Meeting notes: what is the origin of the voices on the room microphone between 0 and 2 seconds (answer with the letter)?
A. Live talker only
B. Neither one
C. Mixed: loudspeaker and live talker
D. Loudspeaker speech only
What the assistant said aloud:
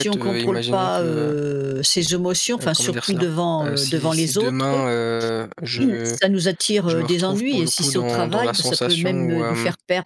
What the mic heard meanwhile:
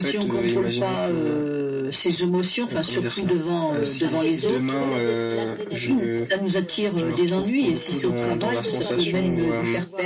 D